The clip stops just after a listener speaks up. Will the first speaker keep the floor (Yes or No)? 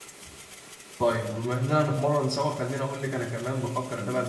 Yes